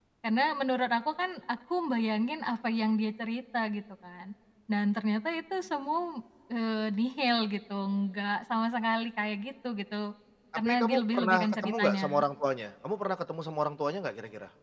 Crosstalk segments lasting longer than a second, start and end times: 10.6-12.1

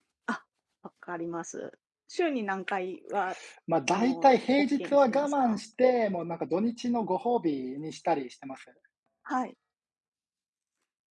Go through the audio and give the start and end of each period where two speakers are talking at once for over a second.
3.9-5.6

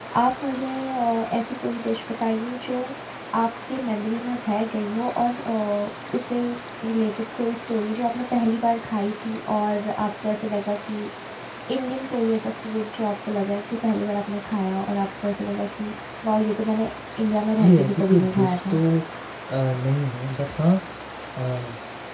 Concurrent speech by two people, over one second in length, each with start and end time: 17.6-18.8

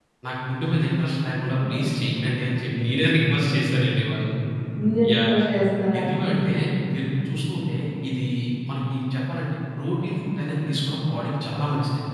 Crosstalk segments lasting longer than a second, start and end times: none

